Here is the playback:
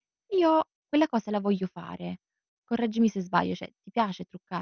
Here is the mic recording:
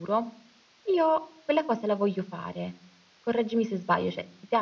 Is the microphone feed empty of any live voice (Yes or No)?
Yes